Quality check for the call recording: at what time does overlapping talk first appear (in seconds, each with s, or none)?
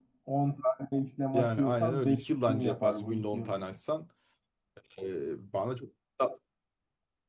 1.3 s